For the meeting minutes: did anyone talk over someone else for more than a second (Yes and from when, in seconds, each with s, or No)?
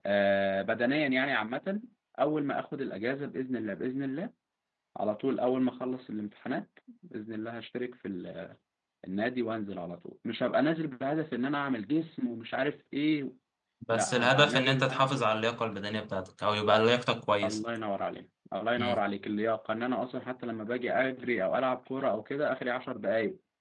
Yes, from 13.9 s